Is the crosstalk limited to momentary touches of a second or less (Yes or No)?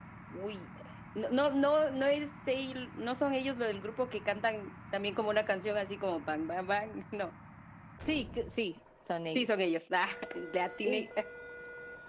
Yes